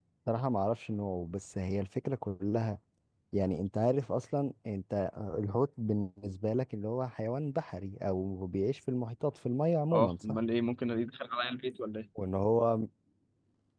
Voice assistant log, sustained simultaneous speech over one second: none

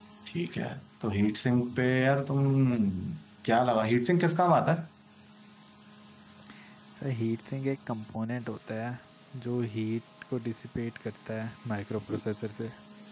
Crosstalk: none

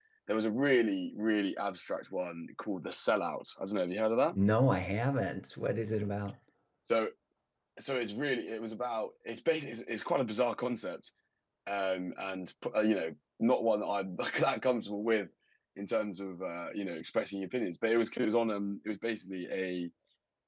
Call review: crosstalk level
none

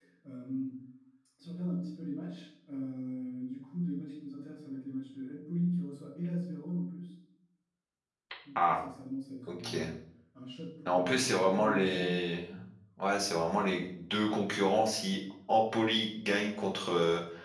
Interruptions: present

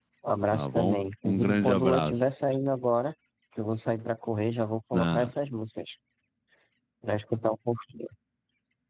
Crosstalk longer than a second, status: present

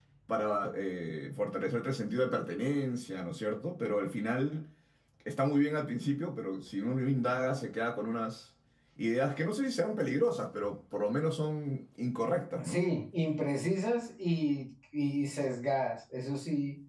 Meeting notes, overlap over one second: none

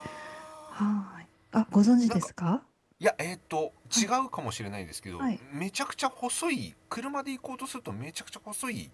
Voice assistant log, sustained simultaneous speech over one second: none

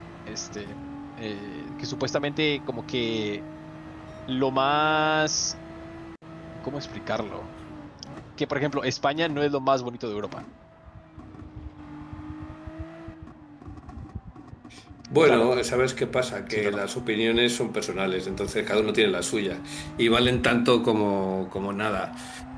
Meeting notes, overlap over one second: none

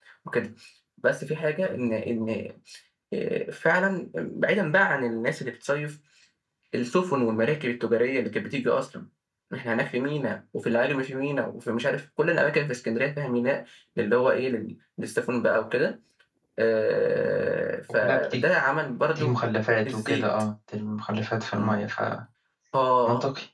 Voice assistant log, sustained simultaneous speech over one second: none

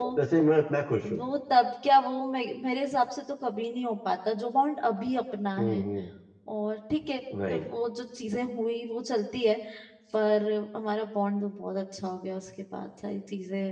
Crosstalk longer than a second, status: none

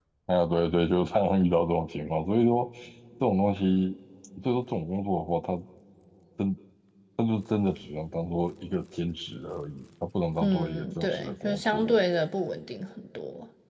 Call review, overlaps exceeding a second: present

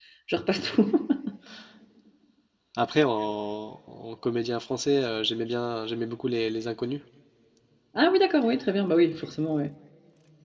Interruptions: none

